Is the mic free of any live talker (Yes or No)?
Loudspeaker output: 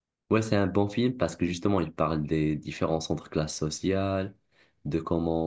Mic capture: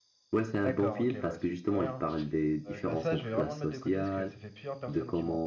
No